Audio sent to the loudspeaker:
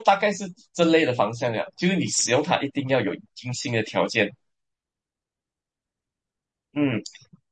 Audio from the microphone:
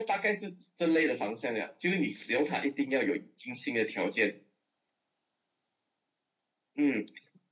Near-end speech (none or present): none